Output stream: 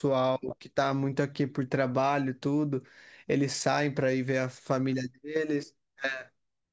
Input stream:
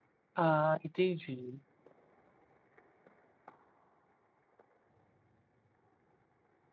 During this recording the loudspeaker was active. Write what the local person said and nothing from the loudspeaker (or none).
Ah, entendi.